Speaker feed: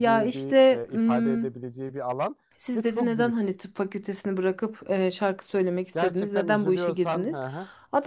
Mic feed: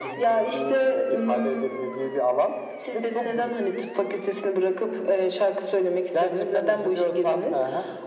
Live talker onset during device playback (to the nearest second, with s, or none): none